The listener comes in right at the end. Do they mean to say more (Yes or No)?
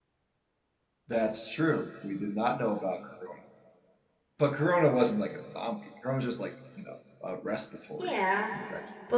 Yes